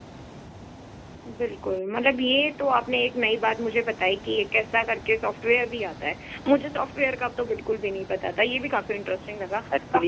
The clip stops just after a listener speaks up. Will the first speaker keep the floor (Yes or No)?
No